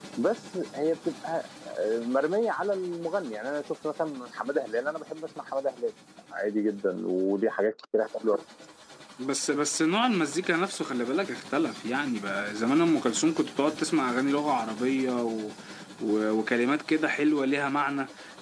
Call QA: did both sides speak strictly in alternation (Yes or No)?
Yes